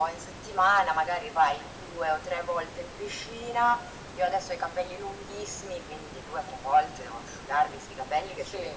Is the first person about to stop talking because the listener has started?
No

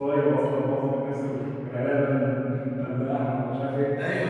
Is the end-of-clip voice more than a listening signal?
Yes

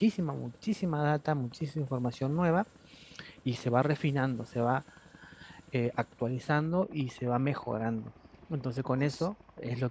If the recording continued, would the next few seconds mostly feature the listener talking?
No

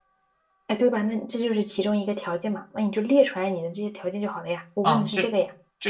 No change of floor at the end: No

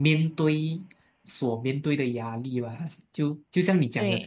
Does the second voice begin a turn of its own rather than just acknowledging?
No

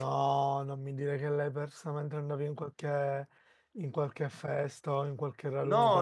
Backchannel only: No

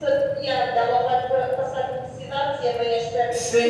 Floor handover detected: Yes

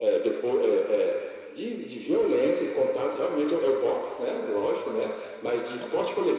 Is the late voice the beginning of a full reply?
No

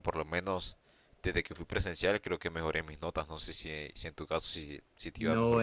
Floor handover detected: Yes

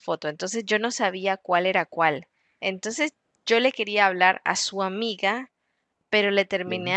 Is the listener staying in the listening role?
Yes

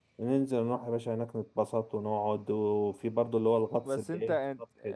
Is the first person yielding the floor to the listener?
Yes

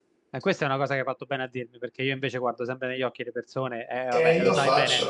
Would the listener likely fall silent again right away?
No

